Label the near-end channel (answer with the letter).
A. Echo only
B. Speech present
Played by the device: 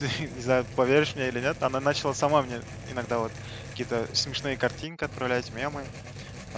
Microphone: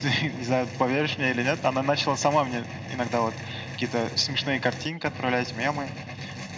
A